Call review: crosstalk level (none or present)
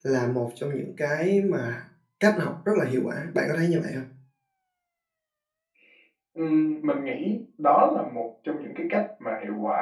none